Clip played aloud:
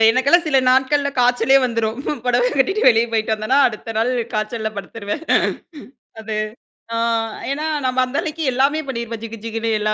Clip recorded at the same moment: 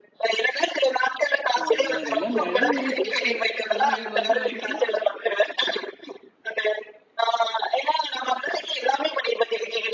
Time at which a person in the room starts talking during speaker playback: 1.6 s

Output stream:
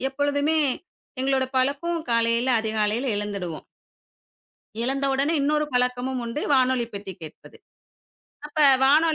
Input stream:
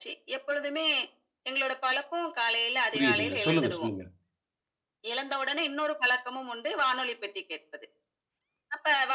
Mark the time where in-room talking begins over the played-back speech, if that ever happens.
2.9 s

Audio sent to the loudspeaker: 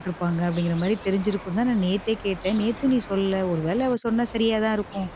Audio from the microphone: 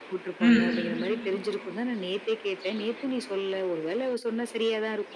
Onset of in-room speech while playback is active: 0.4 s

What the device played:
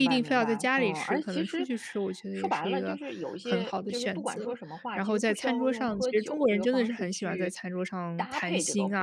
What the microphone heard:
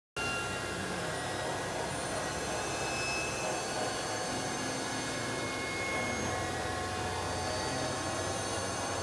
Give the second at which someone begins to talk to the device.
none

